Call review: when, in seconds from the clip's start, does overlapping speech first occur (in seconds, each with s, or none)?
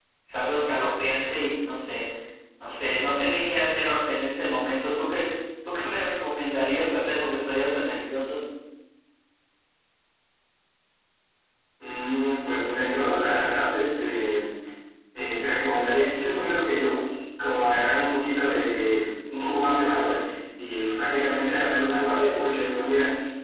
none